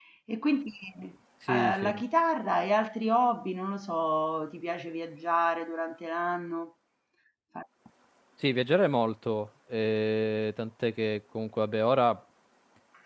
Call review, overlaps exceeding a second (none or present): none